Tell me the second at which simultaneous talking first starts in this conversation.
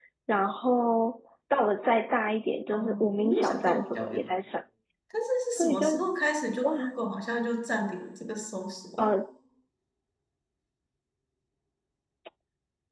2.7 s

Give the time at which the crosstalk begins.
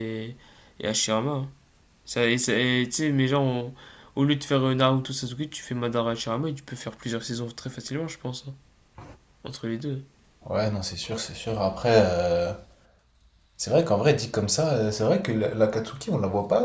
none

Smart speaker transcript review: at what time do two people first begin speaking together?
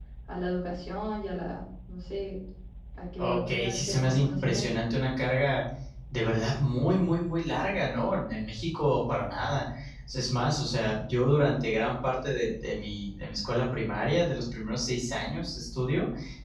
3.2 s

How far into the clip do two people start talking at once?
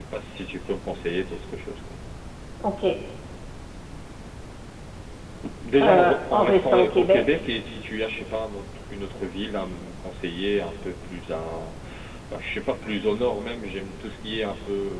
5.8 s

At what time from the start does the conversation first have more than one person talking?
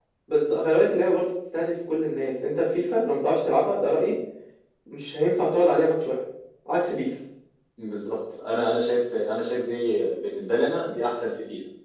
none

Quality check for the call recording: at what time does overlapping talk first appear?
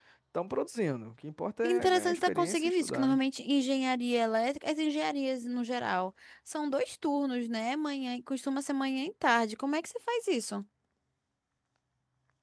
1.6 s

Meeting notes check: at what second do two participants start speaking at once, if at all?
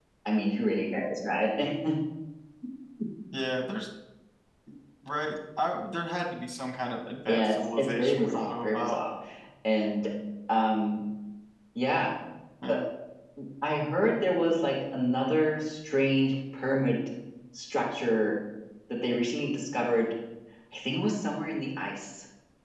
7.3 s

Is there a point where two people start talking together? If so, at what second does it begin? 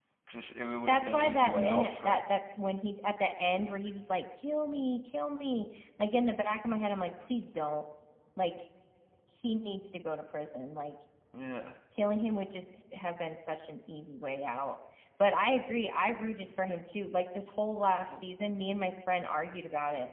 0.9 s

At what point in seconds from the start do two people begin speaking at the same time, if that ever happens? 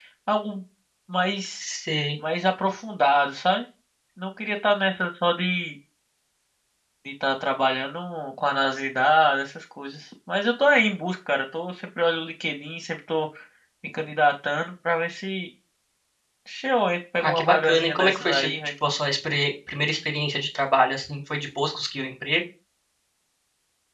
17.2 s

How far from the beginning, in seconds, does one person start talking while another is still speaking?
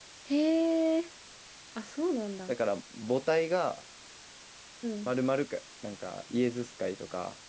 none

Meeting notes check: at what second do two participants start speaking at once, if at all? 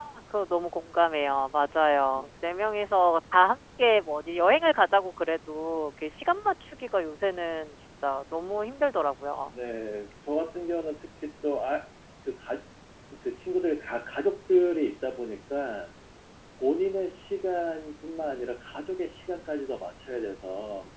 none

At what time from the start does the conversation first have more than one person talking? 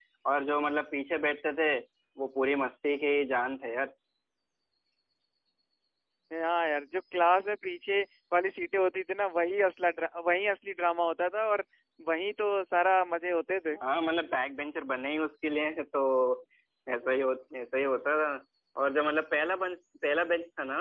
none

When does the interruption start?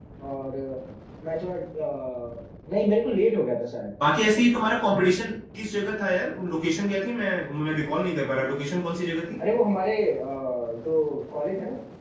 none

